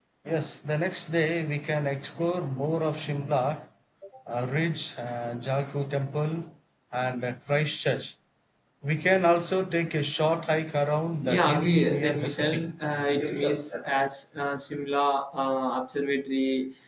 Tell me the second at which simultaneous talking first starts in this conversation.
11.2 s

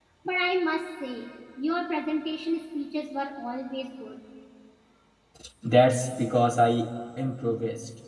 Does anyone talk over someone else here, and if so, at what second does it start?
none

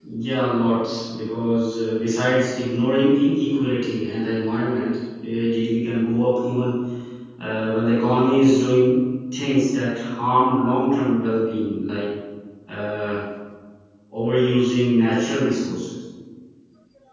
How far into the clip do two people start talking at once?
none

